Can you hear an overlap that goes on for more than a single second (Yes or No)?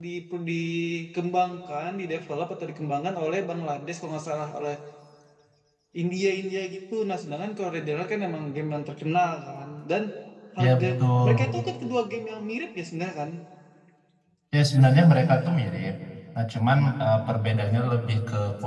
No